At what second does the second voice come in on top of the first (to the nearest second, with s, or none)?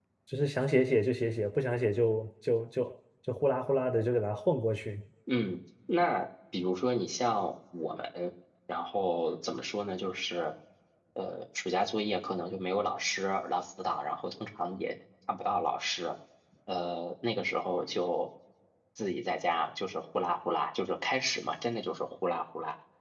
none